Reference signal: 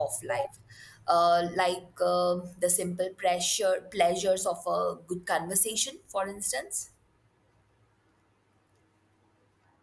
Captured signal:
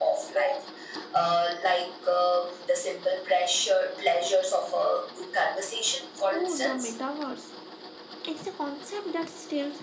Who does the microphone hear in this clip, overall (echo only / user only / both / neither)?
both